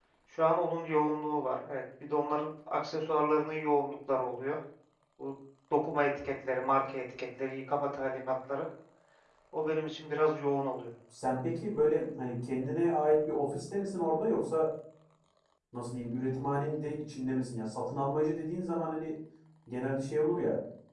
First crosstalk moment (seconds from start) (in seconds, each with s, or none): none